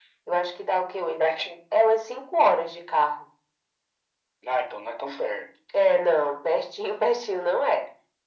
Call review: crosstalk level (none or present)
none